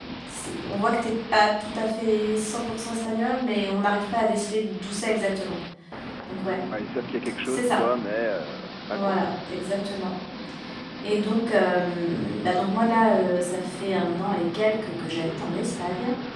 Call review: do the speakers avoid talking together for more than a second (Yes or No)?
Yes